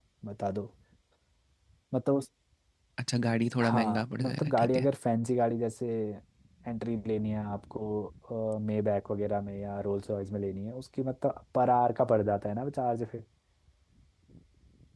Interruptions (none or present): present